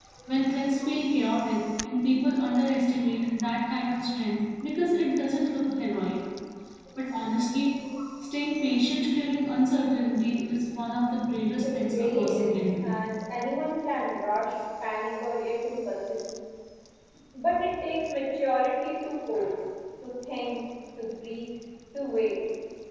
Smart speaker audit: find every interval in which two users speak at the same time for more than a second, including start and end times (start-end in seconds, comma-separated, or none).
11.6-12.9